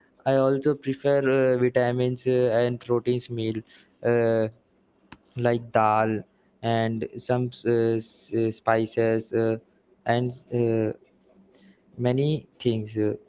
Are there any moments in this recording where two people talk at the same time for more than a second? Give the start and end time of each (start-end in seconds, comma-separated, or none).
none